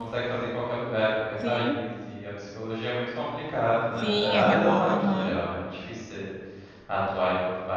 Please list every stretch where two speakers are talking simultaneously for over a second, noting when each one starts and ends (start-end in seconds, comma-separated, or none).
4.0-5.4